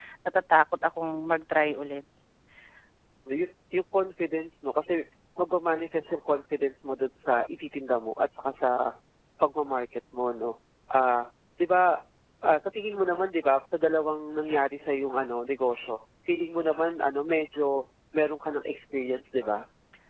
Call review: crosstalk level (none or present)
none